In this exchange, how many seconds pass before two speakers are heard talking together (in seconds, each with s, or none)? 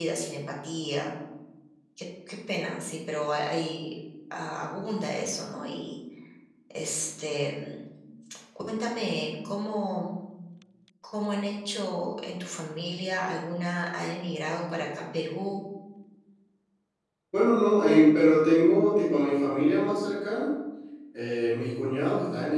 none